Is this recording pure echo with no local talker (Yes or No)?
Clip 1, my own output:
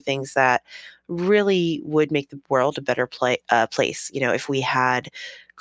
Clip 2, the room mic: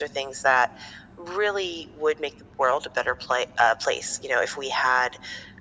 Yes